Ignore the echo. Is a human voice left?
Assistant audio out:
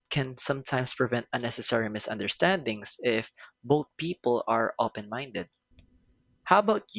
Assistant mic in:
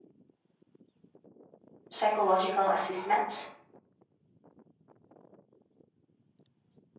Yes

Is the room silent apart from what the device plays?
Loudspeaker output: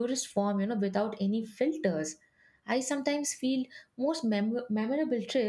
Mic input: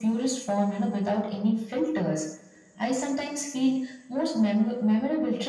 Yes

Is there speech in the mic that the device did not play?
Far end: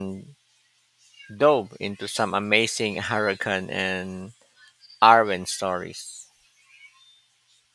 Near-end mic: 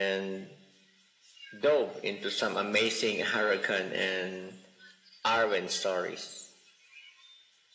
No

